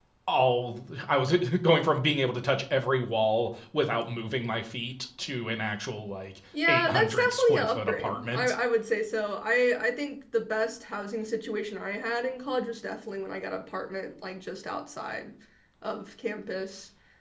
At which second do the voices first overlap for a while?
6.5 s

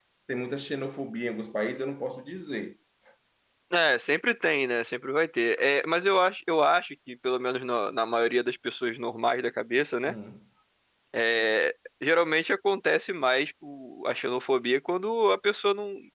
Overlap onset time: none

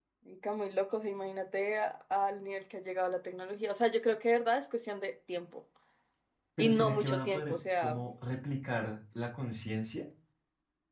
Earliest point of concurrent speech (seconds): 6.6 s

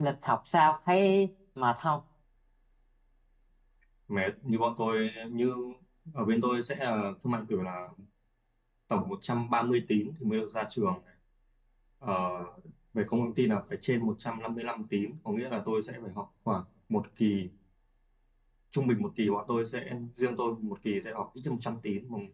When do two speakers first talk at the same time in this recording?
none

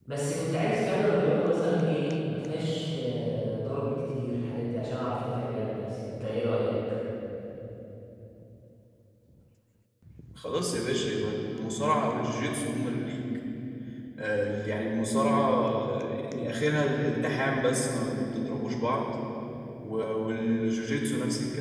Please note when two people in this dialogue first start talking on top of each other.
none

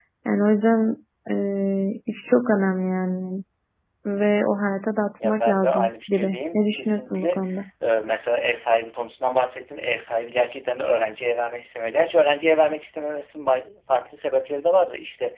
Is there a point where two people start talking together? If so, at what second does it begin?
5.2 s

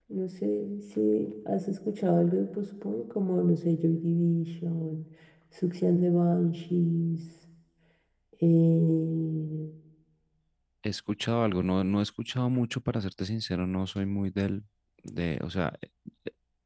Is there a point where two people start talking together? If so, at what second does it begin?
none

